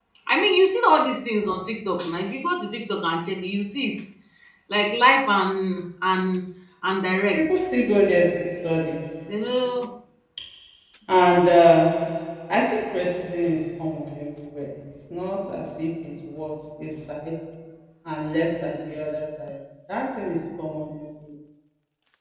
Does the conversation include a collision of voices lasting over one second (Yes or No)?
No